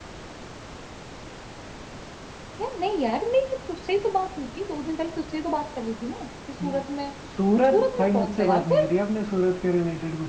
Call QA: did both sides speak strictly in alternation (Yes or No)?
No